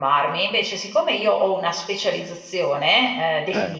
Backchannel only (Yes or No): Yes